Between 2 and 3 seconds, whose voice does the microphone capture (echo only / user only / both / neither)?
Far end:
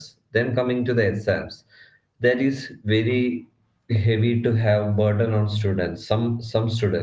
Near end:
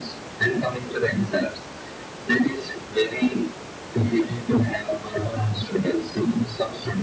echo only